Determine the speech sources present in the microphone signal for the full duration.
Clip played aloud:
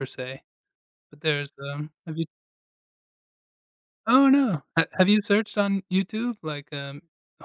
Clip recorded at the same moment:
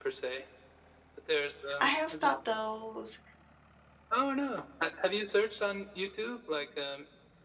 both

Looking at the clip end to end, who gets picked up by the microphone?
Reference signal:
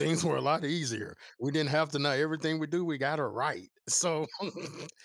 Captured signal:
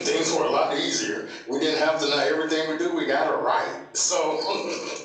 echo only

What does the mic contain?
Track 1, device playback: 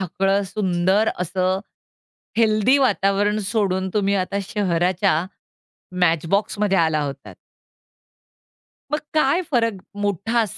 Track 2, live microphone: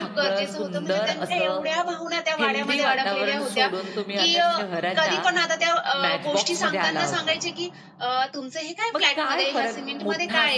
both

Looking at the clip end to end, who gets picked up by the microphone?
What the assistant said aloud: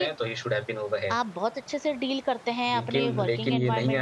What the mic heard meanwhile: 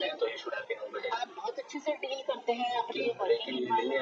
echo only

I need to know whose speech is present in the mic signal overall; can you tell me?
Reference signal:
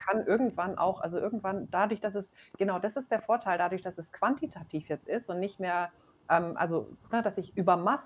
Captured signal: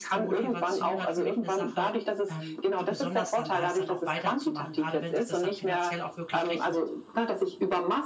both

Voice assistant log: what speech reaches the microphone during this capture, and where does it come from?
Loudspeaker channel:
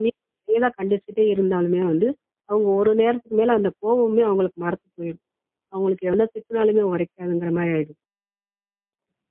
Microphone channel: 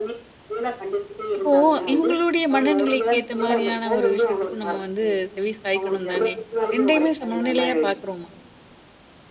both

